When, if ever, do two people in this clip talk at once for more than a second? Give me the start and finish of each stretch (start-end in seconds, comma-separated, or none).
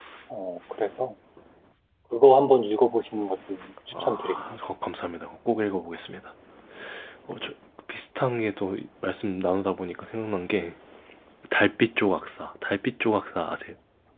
none